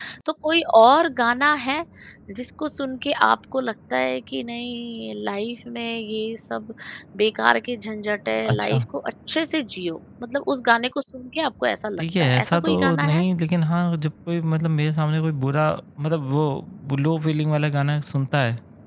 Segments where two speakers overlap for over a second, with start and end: 12.0-13.2

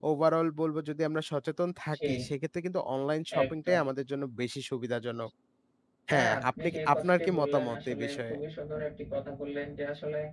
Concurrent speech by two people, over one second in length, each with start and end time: 6.1-8.3

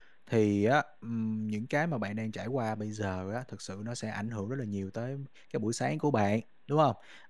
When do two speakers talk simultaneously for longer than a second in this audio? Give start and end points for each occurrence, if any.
none

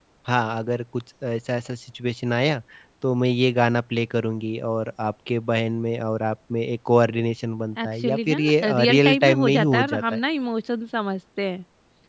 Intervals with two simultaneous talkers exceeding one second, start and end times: 7.8-10.2

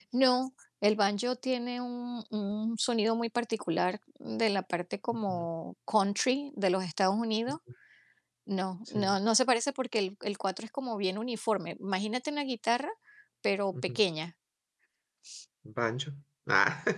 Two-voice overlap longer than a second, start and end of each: none

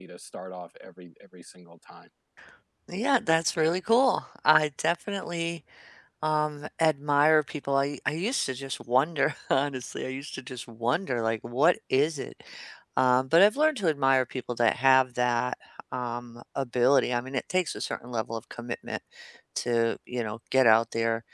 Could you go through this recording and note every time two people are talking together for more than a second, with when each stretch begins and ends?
none

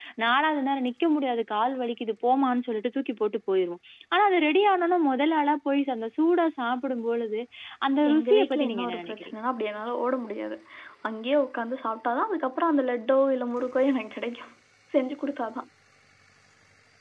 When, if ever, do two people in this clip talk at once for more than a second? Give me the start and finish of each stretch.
8.1-9.3

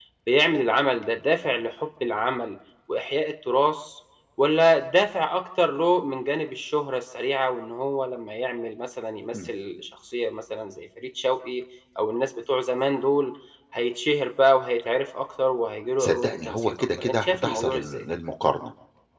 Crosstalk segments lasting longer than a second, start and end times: 16.0-18.0

